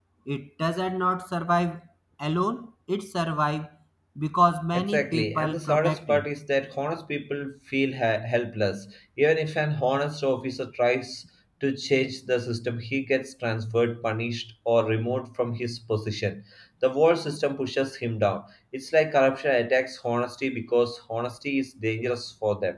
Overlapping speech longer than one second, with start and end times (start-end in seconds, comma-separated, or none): 4.7-6.2